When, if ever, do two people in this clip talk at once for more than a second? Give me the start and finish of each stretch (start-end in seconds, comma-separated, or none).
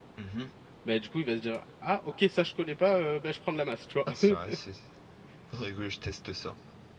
none